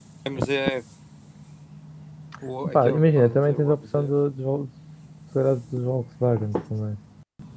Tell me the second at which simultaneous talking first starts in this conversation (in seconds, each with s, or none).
2.7 s